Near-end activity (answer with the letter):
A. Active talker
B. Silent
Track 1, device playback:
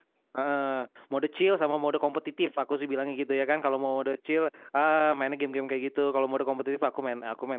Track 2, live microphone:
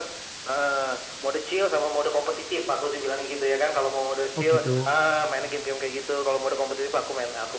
A